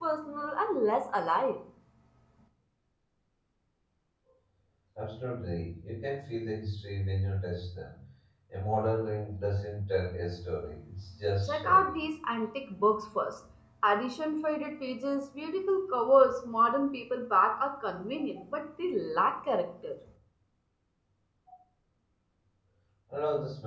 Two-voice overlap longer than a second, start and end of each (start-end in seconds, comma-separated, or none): none